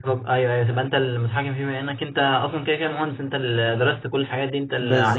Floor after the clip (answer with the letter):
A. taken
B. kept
A